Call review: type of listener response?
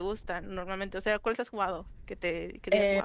taking over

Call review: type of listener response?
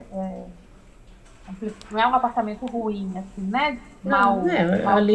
taking over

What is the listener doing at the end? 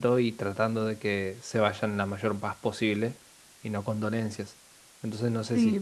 taking over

